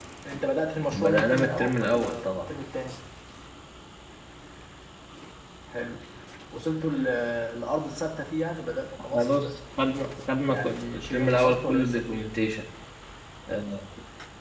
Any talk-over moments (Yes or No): Yes